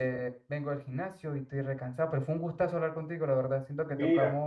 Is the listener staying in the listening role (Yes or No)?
Yes